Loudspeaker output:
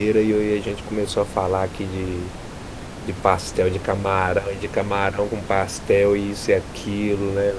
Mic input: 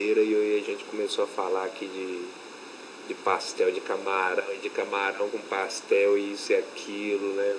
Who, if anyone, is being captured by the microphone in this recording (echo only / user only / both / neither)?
echo only